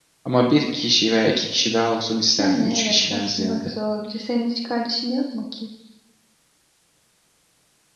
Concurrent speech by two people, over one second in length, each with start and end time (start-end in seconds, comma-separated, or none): 2.4-3.7